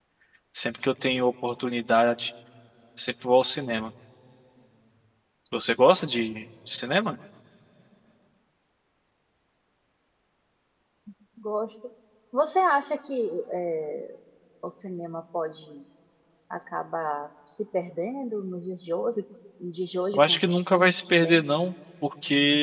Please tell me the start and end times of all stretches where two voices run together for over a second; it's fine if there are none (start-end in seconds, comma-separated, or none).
20.1-21.4